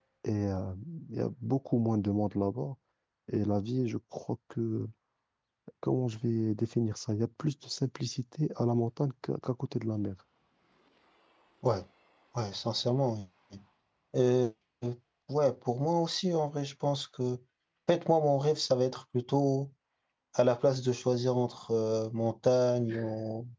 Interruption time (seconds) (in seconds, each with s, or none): none